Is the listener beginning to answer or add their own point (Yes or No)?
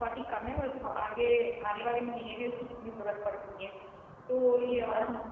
No